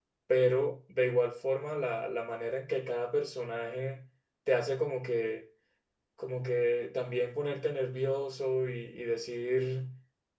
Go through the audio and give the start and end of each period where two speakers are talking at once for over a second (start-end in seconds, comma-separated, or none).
none